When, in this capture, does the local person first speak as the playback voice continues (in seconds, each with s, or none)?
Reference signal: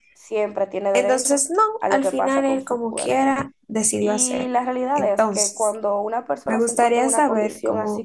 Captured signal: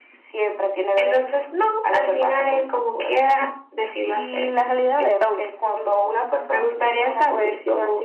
none